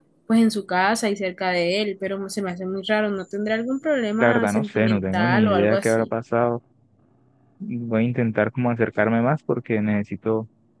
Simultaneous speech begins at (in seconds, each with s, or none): 4.2 s